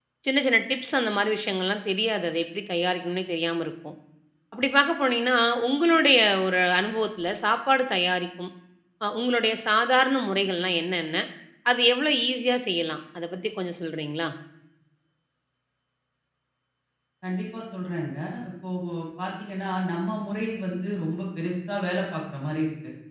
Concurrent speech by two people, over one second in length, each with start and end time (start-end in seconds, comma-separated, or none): none